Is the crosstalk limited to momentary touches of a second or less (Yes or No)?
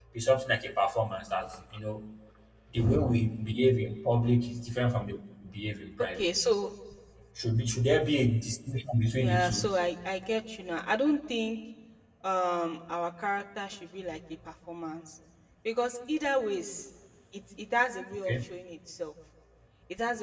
Yes